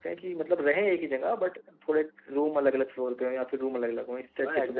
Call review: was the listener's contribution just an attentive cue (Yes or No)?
No